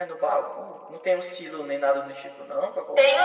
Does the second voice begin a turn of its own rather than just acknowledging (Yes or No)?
Yes